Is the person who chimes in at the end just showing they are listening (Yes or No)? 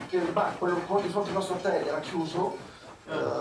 Yes